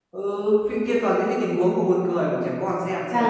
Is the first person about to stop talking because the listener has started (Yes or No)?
Yes